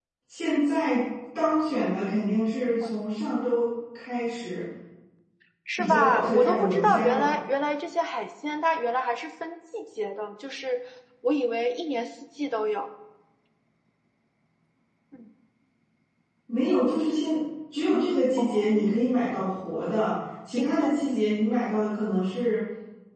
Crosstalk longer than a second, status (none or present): present